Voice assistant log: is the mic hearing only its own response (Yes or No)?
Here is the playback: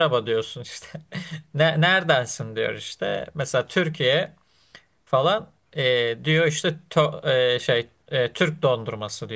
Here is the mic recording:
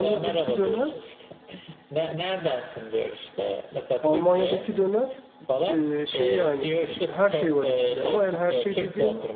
No